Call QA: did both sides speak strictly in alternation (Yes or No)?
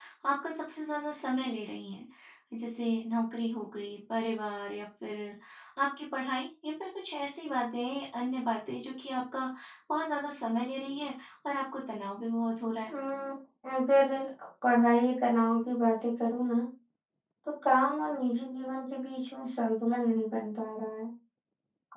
Yes